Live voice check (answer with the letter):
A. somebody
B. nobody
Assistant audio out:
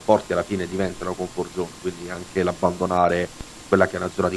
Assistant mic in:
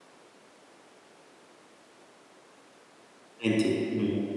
A